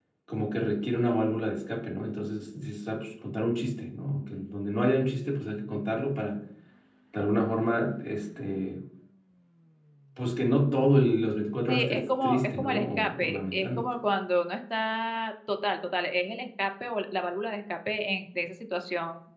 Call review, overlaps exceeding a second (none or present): present